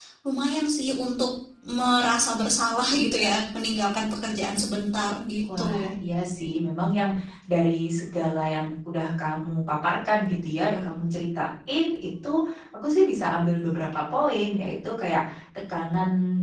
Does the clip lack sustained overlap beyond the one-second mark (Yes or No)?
Yes